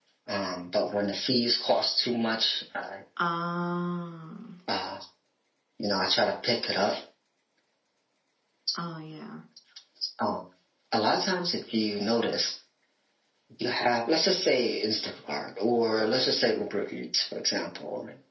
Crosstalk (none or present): none